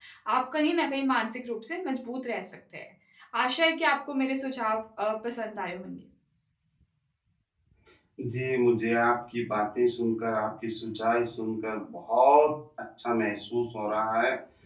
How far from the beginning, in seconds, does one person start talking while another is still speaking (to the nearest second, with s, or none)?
none